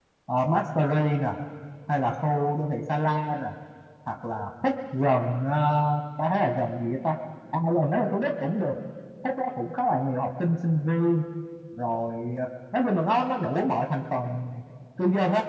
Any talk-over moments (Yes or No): No